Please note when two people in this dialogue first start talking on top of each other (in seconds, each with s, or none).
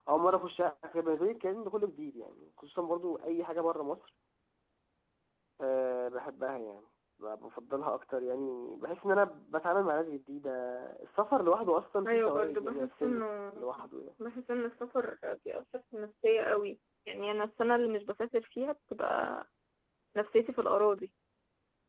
12.0 s